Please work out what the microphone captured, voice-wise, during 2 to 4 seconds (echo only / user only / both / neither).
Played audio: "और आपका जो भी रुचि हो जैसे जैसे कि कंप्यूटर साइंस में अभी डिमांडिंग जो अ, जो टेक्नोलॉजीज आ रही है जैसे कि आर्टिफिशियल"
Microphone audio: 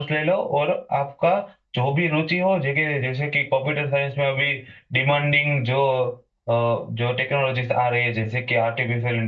echo only